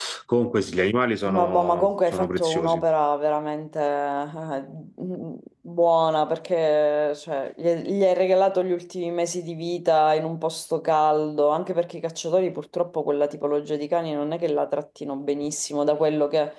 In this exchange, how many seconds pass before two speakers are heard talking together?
1.3 s

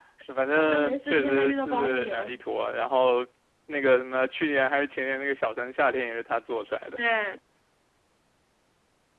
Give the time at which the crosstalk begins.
0.6 s

